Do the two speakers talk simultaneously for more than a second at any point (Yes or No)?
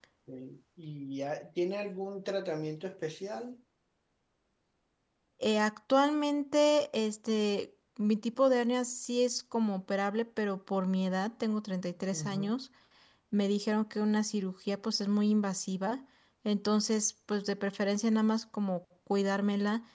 No